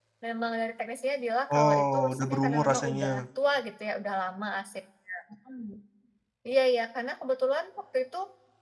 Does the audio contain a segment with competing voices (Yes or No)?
Yes